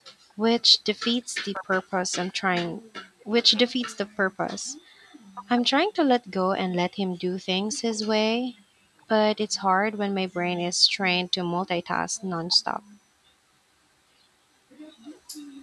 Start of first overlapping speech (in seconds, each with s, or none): none